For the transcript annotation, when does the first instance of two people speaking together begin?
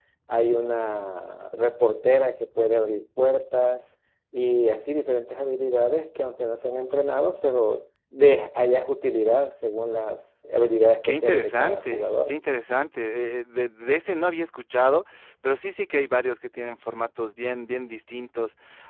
11 s

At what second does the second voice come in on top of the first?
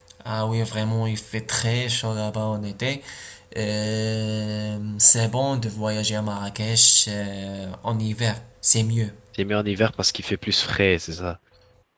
none

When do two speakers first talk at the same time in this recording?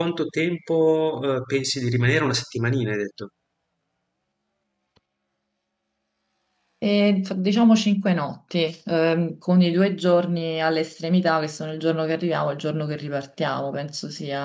none

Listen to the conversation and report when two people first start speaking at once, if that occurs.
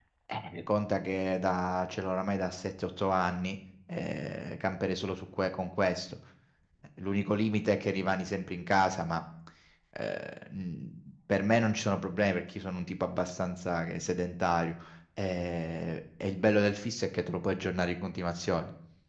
none

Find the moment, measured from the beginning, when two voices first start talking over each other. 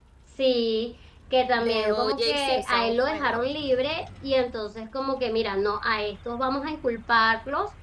2 s

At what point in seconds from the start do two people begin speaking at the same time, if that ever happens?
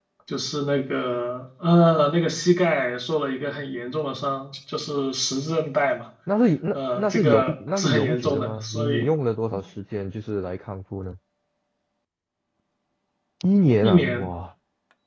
7 s

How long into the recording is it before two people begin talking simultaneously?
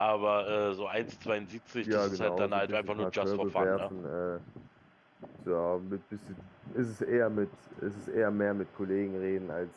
2 s

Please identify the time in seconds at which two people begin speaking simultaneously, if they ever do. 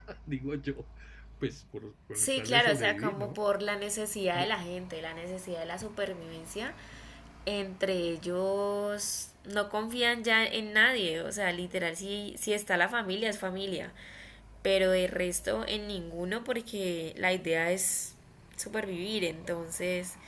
2 s

